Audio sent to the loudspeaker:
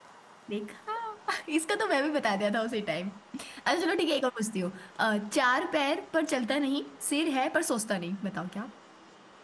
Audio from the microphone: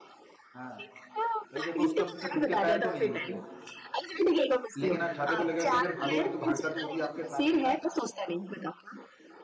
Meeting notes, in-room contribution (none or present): present